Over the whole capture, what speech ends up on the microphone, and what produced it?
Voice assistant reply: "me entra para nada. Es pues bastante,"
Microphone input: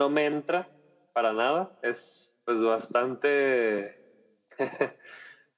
echo only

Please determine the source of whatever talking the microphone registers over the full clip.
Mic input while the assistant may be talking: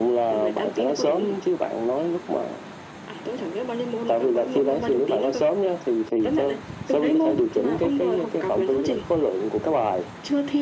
echo only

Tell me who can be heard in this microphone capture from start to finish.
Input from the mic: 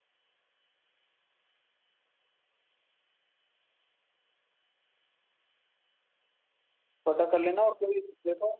user only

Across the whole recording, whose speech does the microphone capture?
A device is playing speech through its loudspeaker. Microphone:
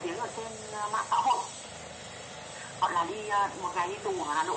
echo only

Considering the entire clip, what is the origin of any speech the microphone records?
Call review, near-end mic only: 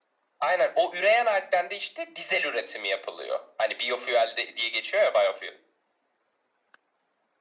echo only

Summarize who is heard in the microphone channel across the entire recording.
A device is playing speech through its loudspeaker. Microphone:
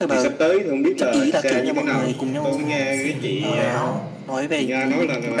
both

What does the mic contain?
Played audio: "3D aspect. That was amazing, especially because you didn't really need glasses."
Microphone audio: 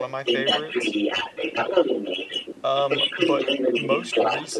both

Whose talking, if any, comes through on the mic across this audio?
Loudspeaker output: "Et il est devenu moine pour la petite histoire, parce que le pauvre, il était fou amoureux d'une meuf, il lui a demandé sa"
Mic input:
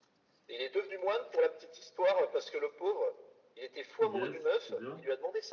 both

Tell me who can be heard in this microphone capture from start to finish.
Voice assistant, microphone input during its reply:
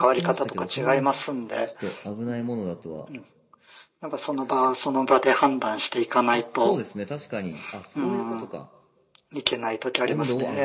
both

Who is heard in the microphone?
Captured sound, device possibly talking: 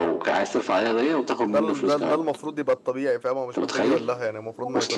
both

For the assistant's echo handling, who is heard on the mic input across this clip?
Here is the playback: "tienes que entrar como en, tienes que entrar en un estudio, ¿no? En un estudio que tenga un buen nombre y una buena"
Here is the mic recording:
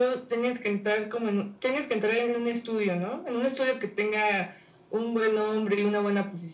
echo only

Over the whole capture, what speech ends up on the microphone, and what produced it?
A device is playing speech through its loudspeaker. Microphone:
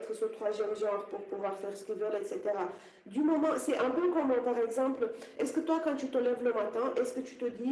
echo only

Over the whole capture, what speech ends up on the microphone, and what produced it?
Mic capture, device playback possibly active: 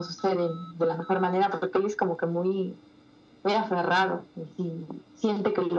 echo only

